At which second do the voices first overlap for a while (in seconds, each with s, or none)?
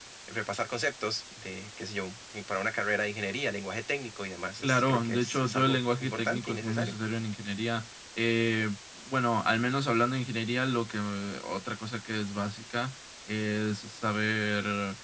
4.6 s